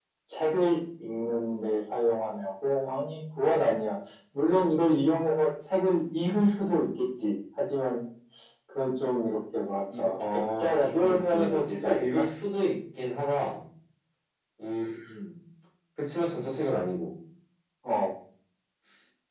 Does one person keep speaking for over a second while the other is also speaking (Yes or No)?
Yes